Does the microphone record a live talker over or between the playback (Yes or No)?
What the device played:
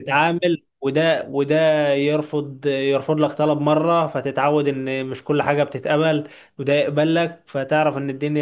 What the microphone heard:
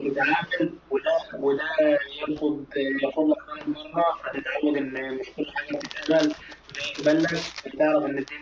No